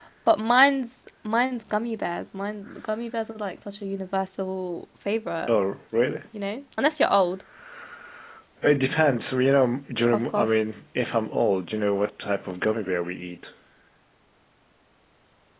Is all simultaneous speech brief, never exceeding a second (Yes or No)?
Yes